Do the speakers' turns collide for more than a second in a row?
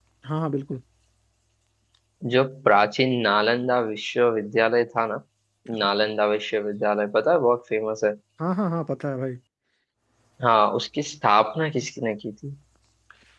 No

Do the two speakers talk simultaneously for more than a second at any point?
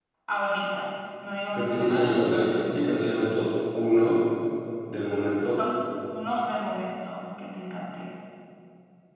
Yes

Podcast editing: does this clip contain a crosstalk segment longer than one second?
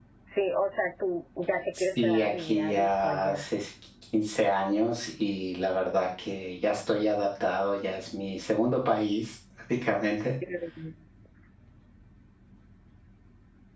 Yes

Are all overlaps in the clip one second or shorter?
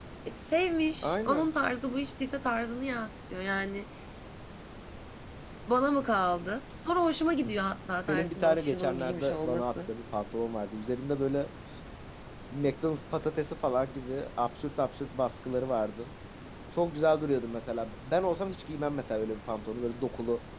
No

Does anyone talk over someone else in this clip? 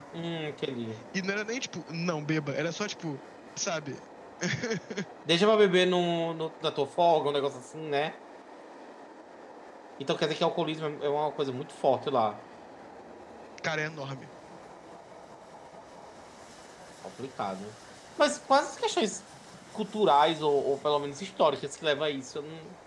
No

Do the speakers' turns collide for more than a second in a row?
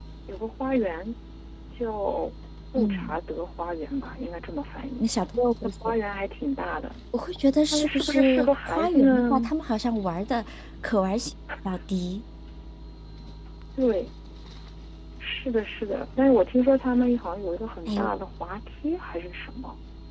Yes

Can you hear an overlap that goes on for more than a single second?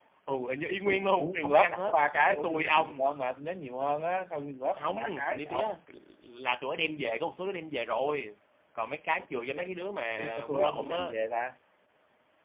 Yes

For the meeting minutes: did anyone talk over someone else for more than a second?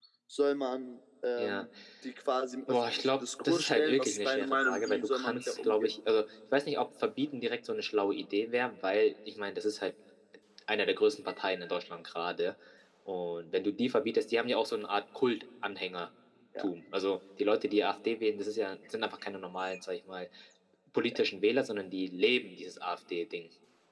Yes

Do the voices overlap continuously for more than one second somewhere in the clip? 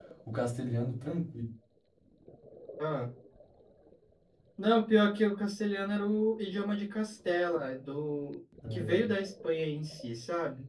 No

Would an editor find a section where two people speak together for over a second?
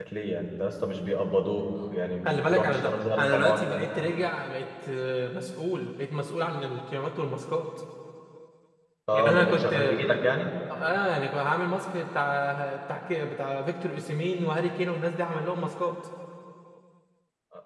Yes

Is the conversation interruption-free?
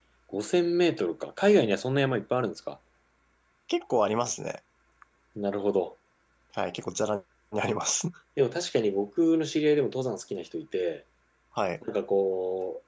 Yes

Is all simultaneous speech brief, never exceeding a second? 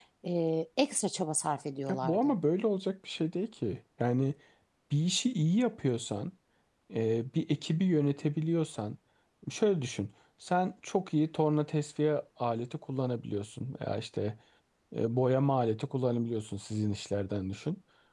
Yes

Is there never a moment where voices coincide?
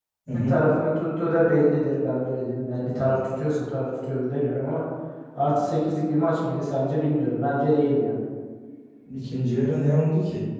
Yes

